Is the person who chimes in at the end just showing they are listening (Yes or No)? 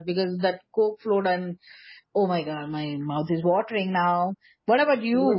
No